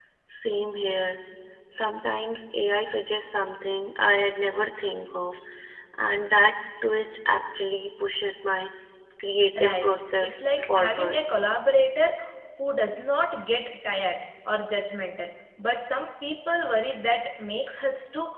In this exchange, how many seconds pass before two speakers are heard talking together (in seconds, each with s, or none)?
9.6 s